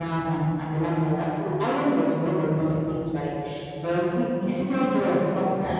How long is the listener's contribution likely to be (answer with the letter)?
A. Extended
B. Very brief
B